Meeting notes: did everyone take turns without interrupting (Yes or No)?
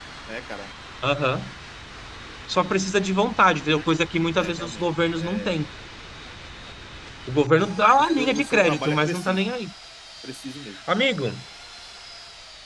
No